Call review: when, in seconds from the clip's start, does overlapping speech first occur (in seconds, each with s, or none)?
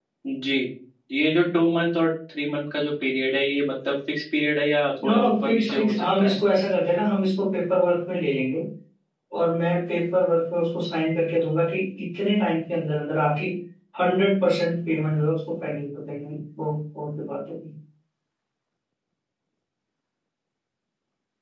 5.0 s